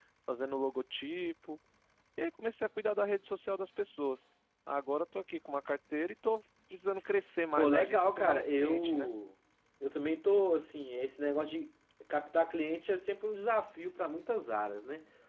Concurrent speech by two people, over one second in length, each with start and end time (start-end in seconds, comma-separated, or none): 7.5-9.1